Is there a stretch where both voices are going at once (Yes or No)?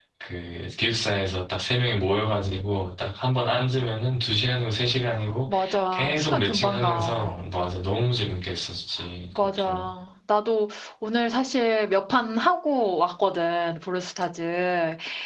Yes